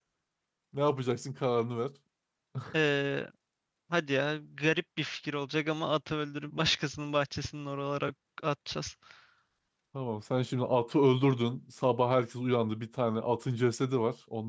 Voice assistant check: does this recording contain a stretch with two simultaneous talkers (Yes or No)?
No